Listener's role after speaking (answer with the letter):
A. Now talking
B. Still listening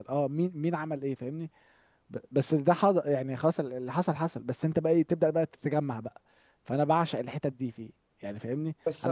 A